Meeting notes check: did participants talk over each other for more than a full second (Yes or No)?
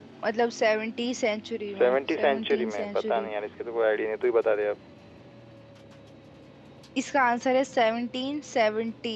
Yes